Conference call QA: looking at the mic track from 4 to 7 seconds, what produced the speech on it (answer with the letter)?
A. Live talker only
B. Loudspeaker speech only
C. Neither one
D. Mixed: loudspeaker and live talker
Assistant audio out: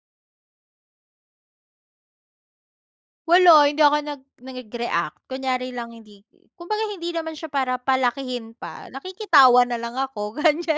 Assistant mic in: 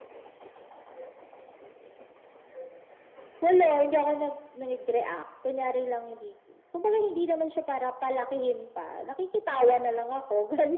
B